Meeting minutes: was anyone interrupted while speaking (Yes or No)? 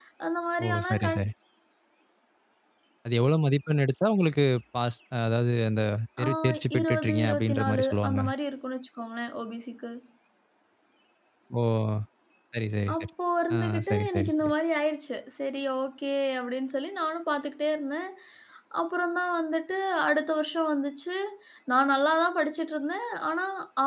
Yes